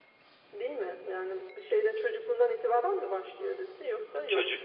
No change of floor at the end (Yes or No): No